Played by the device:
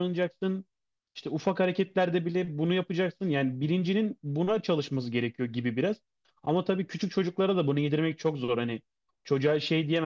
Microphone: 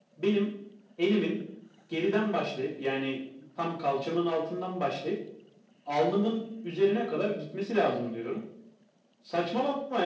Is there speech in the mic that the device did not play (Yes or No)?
Yes